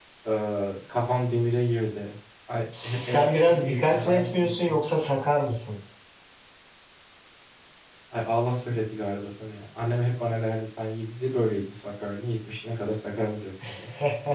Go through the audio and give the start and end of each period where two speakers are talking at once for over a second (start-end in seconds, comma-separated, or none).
2.8-4.8